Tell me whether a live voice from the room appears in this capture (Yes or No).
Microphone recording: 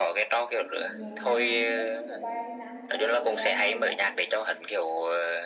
Yes